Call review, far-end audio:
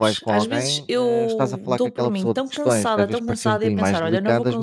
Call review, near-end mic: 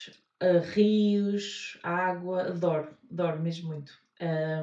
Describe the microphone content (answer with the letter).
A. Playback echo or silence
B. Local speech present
B